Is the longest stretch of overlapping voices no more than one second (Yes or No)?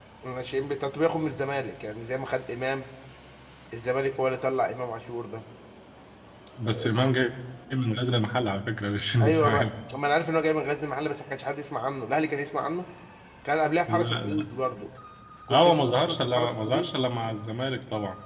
No